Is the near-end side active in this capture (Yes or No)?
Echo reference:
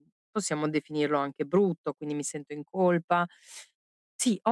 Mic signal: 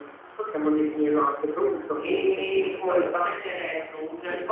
Yes